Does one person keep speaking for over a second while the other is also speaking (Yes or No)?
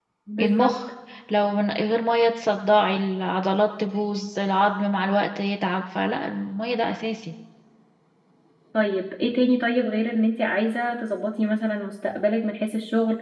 No